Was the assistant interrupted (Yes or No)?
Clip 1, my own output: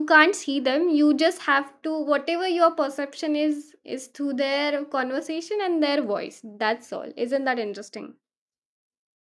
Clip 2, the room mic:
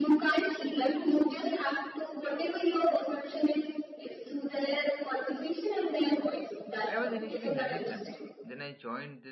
Yes